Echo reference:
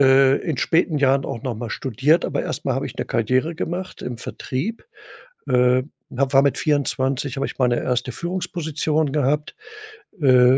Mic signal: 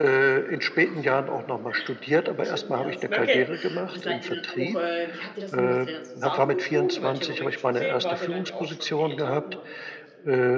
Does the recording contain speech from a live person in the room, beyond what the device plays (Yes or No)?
Yes